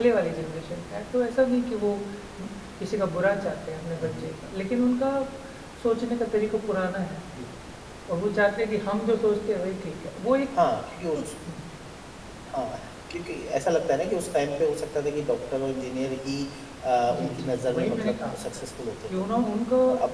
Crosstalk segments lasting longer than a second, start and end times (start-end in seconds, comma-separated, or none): 17.1-18.4